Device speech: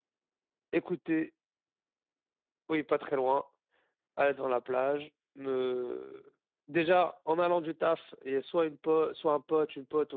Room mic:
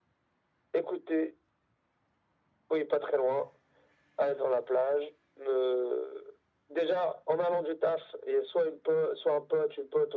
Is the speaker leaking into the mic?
Yes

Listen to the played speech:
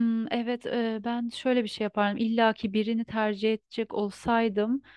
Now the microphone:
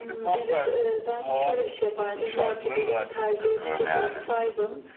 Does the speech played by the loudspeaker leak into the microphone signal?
Yes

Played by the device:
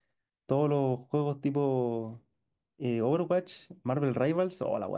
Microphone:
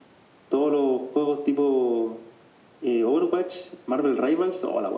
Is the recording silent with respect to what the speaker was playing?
No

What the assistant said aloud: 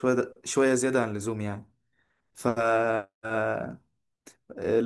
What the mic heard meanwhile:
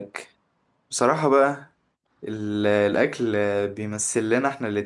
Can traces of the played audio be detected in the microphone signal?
No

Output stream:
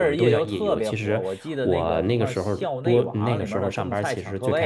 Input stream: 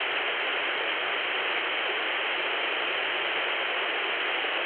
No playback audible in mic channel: Yes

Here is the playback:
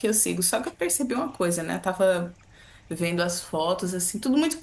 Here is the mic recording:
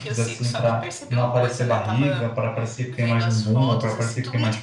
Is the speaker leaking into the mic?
Yes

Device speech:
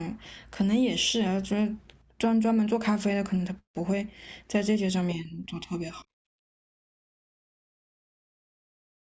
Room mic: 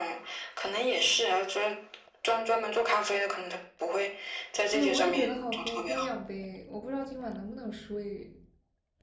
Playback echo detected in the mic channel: Yes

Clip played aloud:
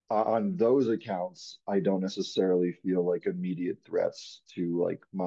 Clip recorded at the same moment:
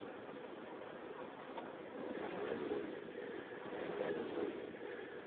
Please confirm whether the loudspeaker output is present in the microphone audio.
No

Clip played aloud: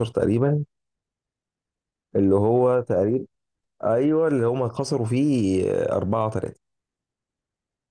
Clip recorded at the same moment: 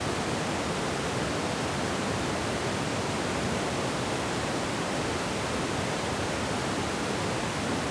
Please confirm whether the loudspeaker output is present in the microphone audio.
No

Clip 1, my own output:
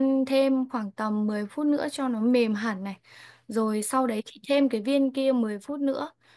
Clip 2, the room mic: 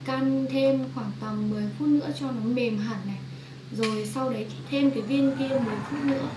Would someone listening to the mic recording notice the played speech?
Yes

